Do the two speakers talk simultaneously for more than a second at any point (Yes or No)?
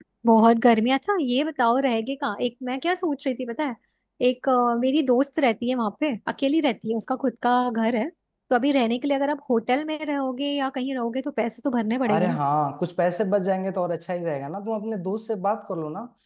No